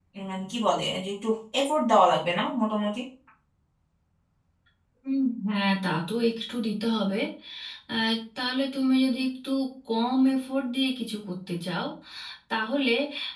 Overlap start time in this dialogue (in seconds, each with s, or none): none